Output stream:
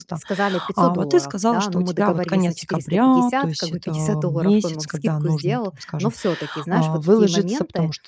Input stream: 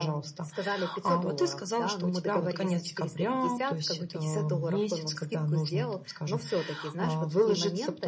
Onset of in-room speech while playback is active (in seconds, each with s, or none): none